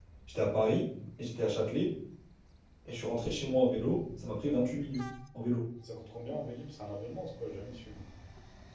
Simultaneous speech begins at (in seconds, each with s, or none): none